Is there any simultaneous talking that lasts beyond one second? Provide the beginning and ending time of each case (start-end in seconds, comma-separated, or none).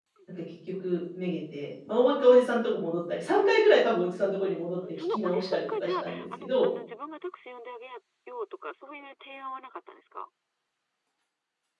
4.9-6.7